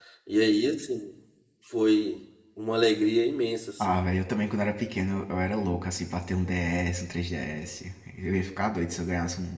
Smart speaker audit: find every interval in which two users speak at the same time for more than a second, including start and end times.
none

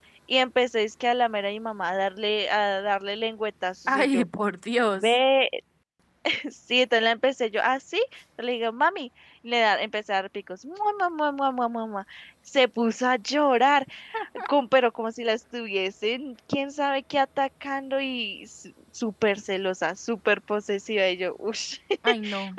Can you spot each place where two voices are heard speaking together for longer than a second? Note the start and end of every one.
none

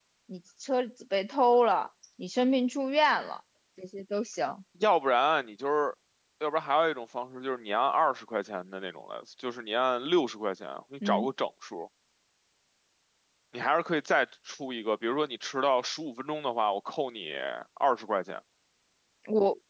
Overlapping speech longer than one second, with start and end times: none

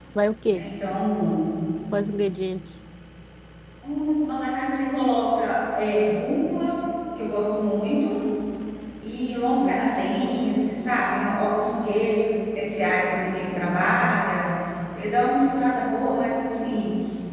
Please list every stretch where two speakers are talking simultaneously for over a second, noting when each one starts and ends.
none

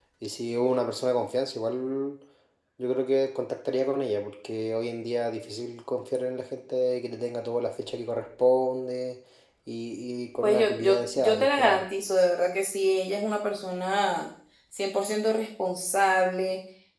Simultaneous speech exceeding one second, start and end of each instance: 10.4-11.9

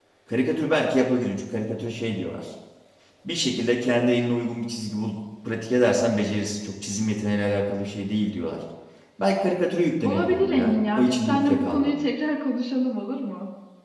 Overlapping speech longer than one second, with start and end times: 10.0-11.9

